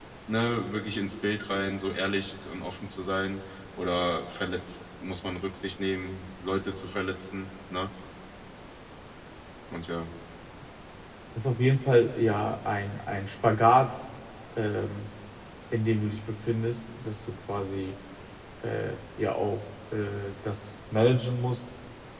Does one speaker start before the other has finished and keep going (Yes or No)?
No